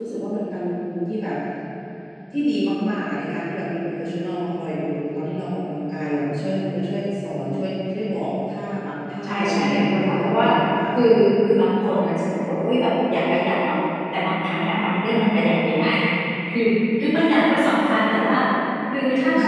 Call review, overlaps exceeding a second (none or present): present